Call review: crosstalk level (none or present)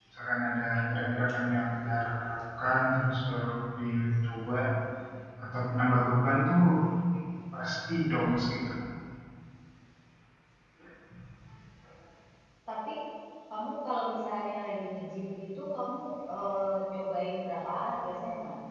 none